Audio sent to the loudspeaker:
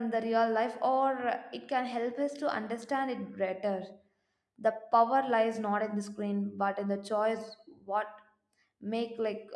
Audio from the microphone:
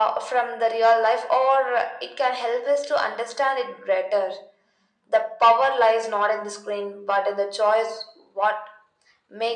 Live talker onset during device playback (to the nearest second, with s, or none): none